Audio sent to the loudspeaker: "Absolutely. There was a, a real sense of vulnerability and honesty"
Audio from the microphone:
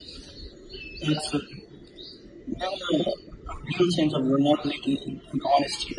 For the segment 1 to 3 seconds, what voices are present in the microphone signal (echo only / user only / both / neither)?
echo only